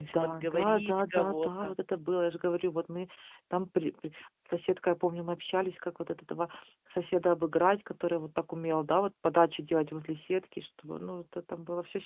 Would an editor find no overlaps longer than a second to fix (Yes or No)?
No